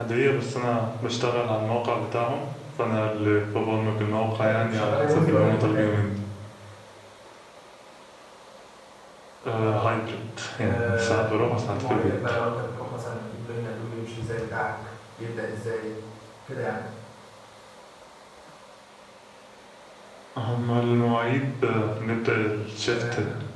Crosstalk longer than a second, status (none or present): present